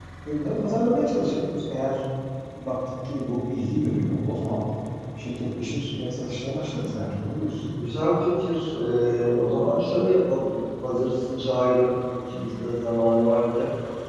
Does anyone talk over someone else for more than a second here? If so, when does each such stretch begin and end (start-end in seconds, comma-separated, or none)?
none